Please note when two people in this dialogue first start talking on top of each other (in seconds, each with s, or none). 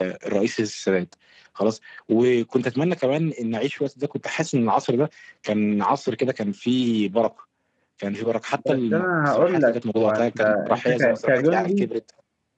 8.7 s